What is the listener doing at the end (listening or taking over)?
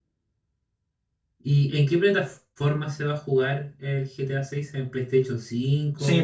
taking over